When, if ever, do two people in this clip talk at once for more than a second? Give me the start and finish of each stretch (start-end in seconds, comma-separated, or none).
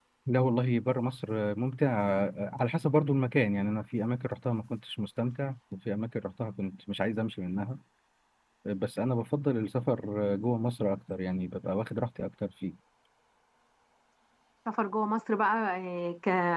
none